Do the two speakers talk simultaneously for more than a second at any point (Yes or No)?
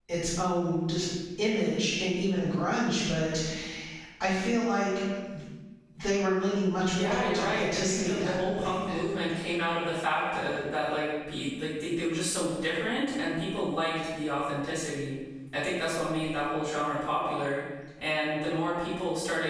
Yes